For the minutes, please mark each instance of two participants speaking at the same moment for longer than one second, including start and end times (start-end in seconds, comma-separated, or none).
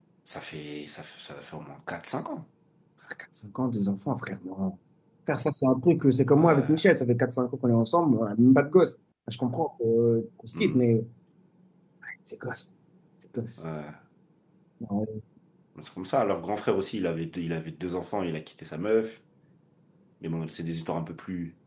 none